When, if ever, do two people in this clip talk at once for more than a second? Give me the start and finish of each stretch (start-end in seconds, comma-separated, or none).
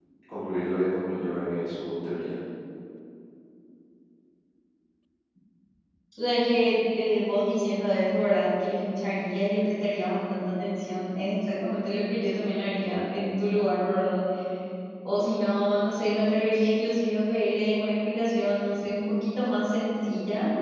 none